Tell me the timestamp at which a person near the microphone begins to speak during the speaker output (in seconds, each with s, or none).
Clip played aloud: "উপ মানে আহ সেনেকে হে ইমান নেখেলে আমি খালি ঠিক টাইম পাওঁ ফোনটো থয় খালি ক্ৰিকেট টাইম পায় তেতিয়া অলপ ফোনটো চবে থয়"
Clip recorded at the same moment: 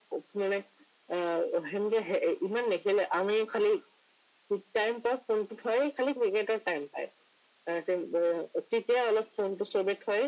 none